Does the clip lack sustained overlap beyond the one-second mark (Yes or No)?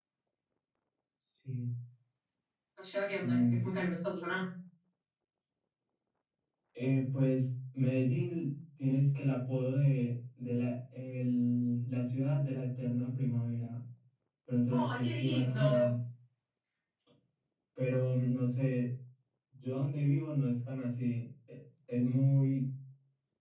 No